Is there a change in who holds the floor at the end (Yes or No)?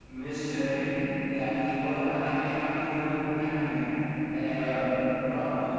No